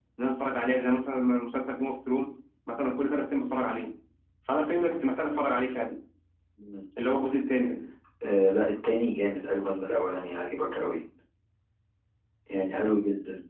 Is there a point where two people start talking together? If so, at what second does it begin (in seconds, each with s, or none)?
none